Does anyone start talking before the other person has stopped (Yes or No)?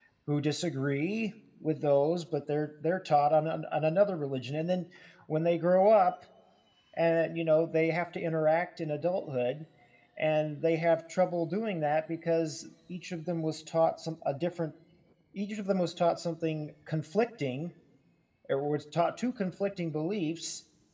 No